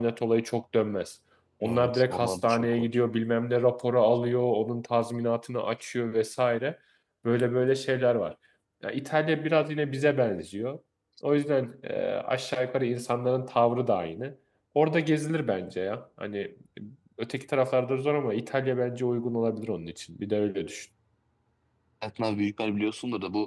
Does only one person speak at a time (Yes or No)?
No